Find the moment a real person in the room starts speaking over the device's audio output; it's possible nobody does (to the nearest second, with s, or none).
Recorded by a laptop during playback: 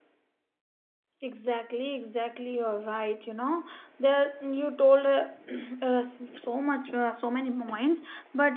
1 s